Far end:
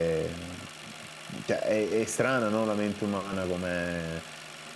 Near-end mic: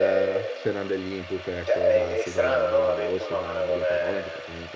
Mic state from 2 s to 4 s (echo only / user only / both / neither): both